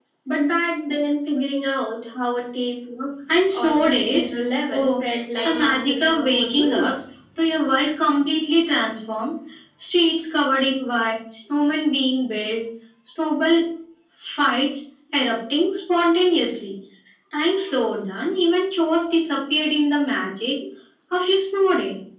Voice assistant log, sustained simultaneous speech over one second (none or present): present